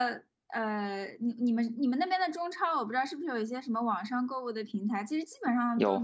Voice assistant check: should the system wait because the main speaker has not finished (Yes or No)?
Yes